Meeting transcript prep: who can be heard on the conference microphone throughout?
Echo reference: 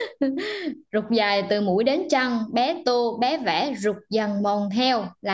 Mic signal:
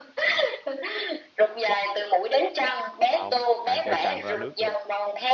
both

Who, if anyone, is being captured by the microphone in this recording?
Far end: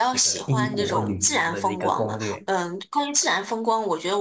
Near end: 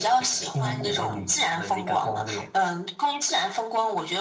echo only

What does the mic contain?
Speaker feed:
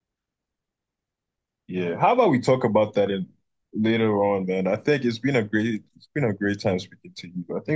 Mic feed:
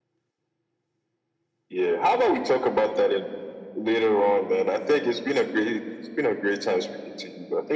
echo only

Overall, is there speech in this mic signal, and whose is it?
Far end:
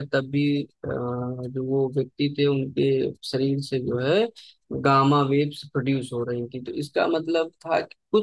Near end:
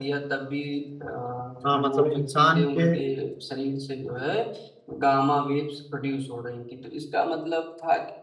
both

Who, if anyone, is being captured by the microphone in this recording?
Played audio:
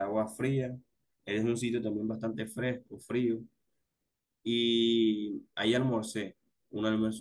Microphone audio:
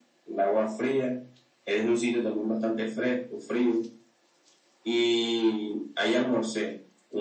echo only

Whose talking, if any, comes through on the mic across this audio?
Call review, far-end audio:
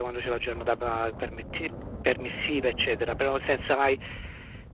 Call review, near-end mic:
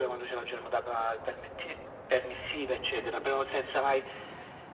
echo only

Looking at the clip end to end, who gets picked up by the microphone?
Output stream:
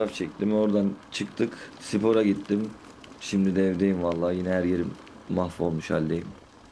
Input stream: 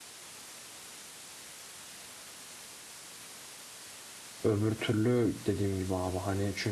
user only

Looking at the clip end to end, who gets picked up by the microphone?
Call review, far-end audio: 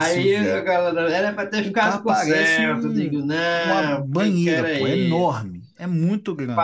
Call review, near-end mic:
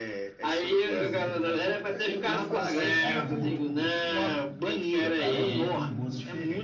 both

